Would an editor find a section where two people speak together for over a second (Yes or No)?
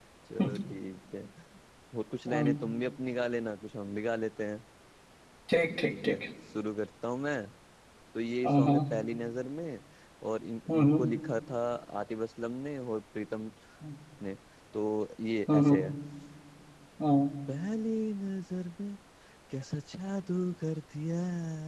No